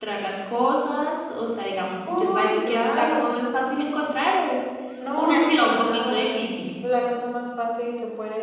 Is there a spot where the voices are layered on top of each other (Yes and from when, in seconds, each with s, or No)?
Yes, from 2.0 s